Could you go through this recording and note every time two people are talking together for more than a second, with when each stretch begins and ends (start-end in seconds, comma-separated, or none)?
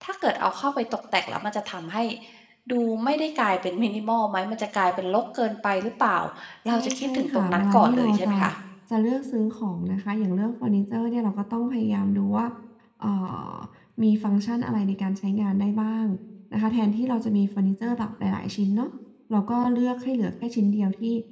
6.7-8.4